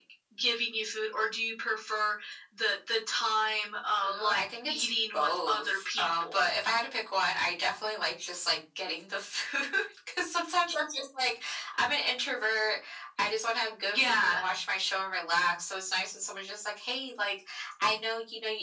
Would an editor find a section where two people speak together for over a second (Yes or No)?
Yes